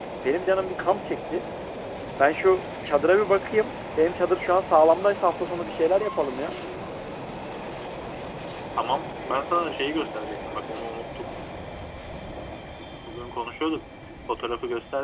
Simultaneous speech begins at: none

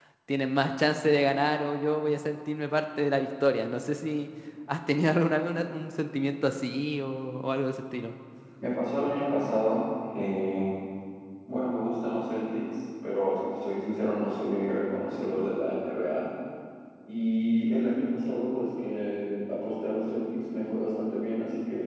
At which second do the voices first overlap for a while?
none

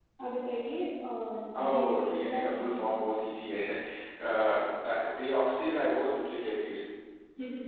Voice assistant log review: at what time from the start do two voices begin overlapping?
1.6 s

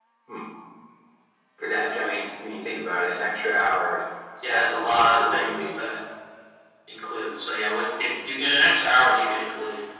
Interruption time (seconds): 4.5 s

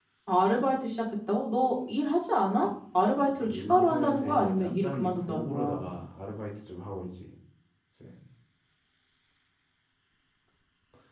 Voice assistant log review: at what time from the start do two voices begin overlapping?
3.4 s

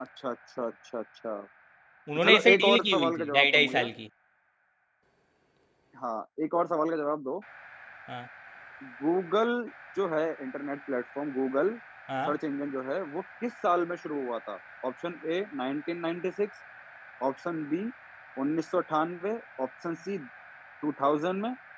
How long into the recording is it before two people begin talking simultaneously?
2.1 s

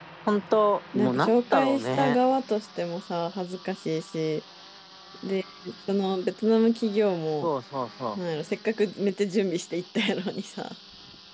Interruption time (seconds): 0.9 s

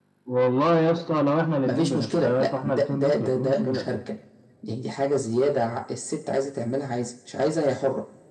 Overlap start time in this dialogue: 1.7 s

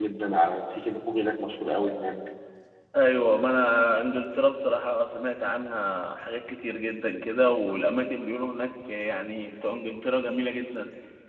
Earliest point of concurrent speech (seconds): none

